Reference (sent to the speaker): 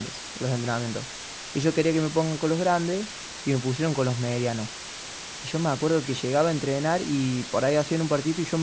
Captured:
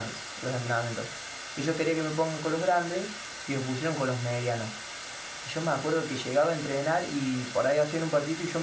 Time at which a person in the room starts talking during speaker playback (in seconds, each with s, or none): none